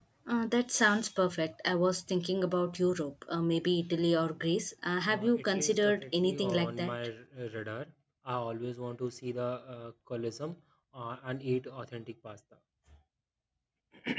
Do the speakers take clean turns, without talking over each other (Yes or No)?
No